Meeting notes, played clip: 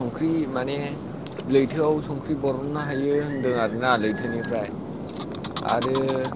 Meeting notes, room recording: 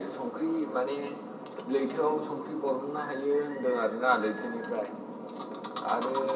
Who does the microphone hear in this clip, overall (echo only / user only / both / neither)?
echo only